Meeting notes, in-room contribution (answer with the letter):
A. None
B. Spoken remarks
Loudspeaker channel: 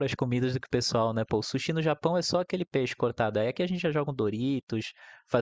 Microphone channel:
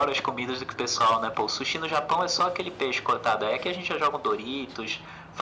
A